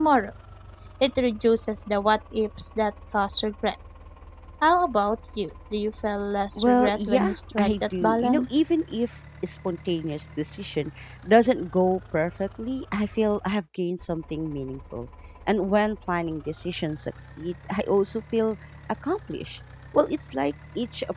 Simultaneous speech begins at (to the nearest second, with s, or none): 7 s